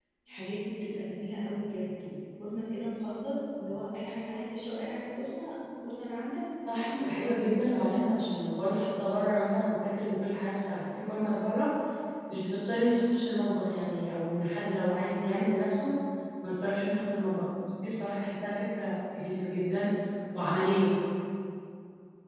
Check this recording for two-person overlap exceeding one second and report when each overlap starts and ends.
6.7-8.0

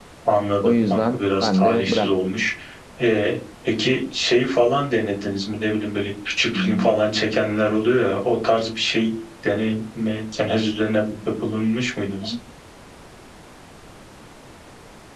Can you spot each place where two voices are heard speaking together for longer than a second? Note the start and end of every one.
0.6-2.1

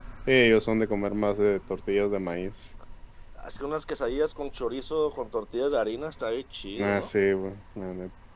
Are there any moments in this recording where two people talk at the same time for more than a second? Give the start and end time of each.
none

